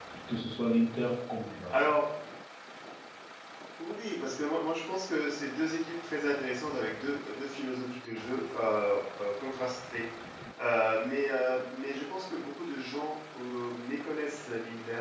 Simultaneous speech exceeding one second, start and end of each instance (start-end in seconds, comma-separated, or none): none